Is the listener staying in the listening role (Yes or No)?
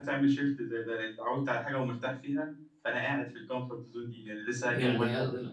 No